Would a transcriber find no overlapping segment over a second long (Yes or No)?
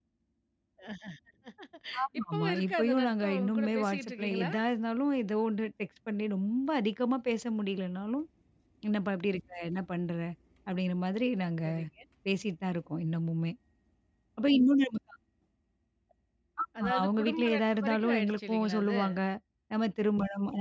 No